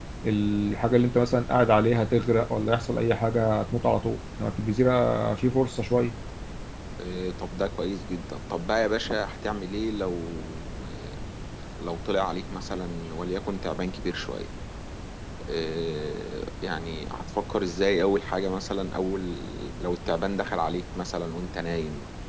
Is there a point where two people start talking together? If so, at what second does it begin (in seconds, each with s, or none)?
none